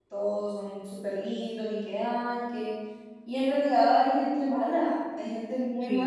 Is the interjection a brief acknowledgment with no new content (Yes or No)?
No